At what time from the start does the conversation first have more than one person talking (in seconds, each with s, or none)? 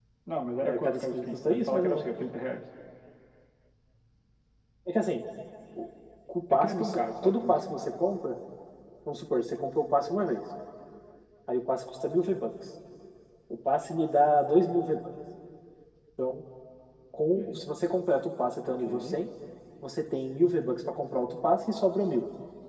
0.6 s